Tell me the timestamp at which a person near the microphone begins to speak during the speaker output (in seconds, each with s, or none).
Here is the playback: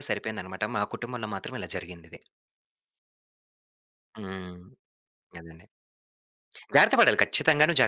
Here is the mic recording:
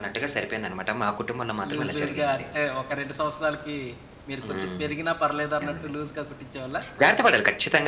1.7 s